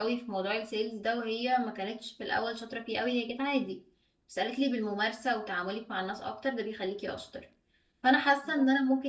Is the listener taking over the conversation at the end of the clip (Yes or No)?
No